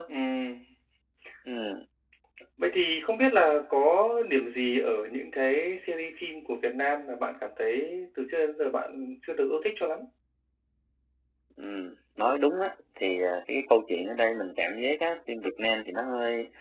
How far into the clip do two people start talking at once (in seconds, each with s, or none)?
none